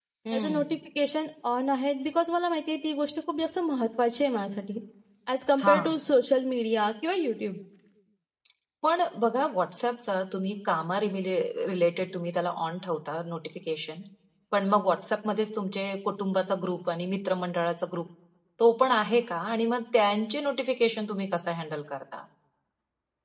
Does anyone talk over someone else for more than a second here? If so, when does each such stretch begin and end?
none

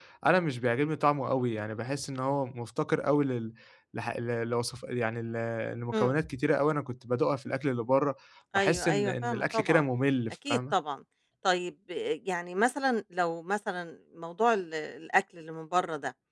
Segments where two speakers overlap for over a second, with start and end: 8.6-9.9

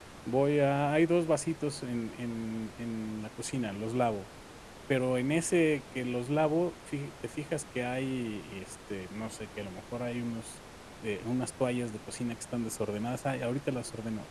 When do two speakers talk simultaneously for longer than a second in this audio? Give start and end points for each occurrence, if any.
none

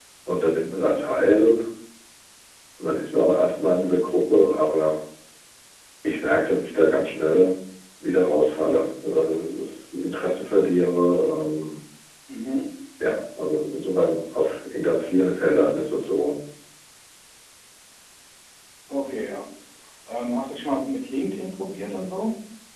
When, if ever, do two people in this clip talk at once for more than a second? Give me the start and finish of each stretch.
none

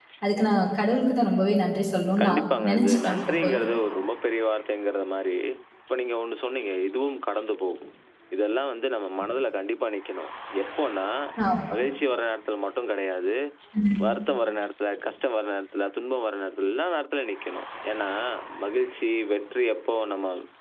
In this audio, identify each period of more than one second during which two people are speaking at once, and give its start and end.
2.2-3.6

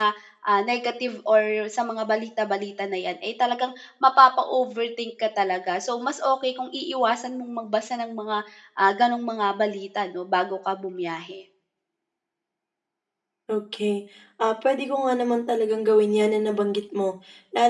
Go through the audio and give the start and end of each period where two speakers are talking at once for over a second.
none

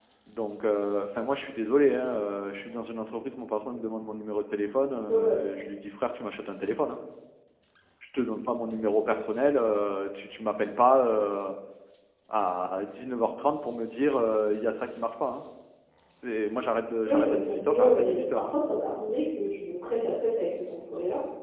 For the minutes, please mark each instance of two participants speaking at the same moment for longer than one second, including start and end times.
17.1-18.5

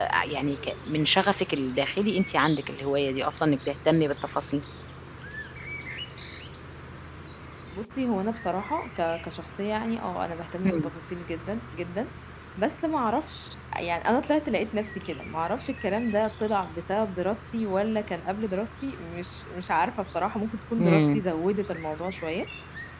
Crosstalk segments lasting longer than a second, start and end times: none

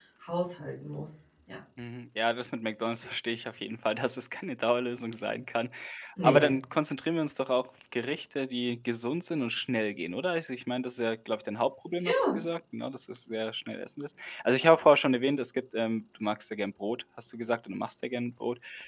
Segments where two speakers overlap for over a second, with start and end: none

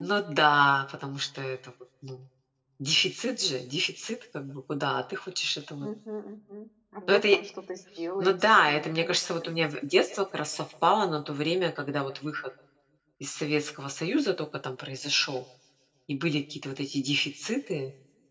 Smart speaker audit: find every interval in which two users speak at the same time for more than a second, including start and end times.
8.2-9.5

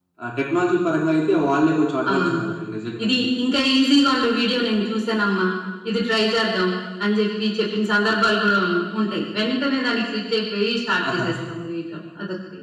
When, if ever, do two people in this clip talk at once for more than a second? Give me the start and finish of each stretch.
none

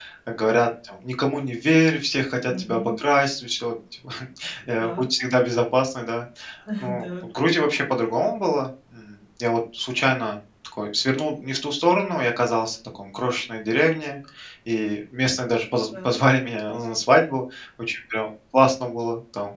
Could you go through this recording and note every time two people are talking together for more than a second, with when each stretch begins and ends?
none

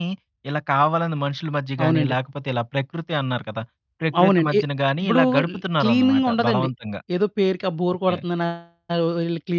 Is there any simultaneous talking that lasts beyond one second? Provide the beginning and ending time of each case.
5.0-6.7

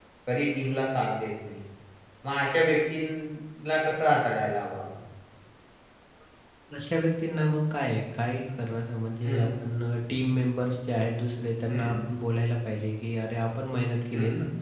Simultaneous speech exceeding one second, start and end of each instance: none

